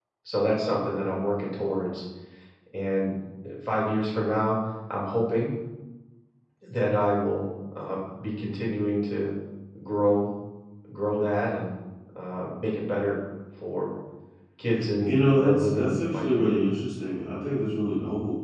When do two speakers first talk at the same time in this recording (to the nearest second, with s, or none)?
15 s